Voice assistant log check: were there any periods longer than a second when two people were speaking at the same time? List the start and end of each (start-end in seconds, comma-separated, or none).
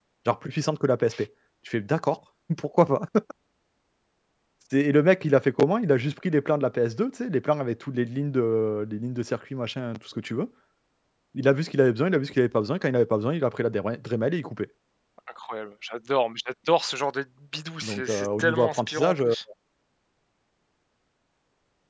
17.8-19.3